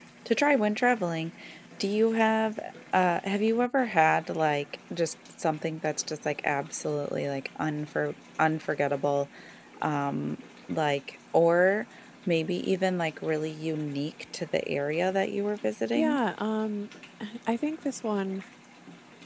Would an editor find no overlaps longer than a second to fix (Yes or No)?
Yes